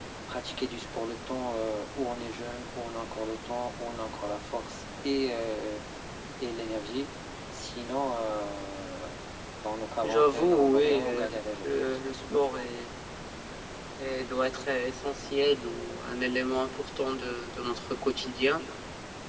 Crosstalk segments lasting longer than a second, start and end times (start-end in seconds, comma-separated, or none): 10.0-12.0